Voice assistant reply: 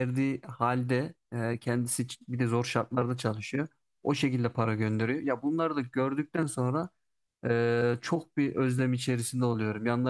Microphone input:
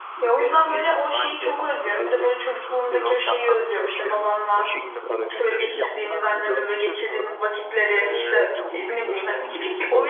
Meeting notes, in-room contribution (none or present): present